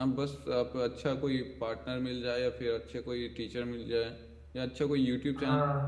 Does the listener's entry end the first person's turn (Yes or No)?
No